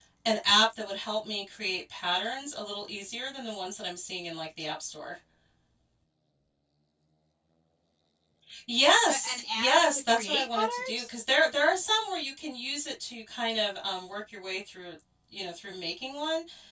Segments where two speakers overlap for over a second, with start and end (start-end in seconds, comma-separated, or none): 9.1-11.1